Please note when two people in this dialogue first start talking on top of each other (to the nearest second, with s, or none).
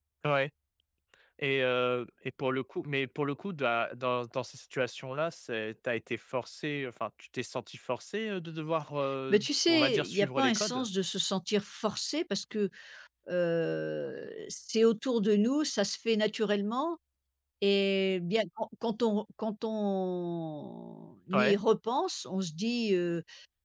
9 s